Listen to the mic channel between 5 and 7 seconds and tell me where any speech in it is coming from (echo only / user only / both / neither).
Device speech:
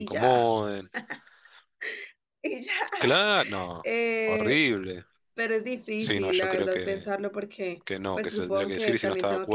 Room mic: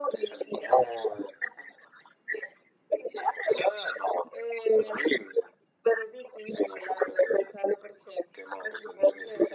echo only